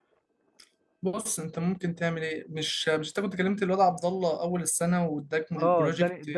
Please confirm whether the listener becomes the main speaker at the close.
Yes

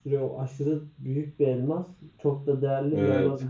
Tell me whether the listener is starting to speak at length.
No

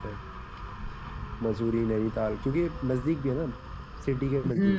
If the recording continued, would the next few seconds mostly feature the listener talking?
Yes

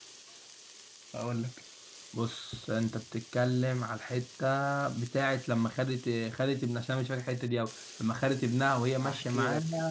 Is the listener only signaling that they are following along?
No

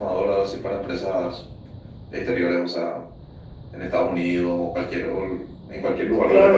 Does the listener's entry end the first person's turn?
Yes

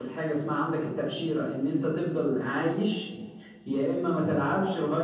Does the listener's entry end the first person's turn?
No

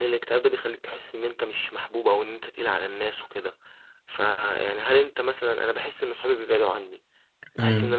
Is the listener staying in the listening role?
Yes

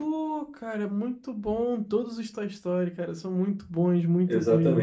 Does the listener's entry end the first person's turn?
Yes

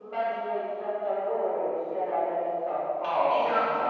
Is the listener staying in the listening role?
No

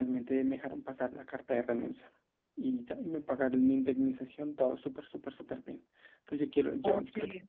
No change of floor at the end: Yes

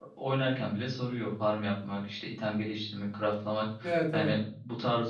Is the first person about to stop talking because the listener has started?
No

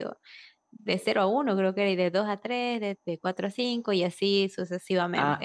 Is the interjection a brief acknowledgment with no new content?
No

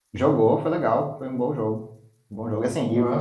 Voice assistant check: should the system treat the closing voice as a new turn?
No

